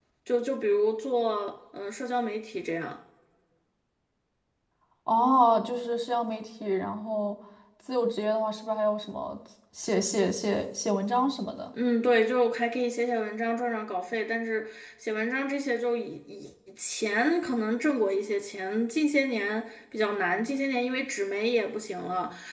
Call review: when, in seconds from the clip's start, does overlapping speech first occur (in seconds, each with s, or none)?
none